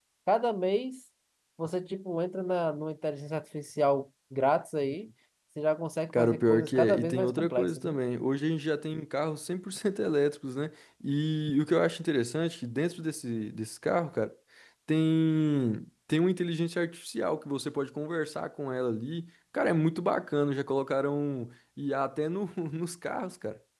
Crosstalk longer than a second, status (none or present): present